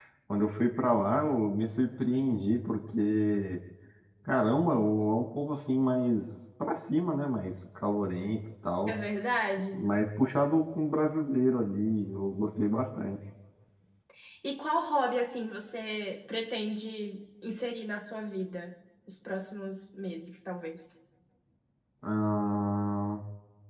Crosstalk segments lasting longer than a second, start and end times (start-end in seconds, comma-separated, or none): none